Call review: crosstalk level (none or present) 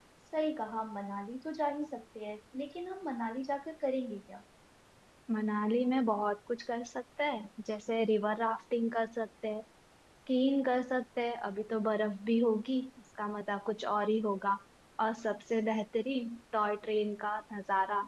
none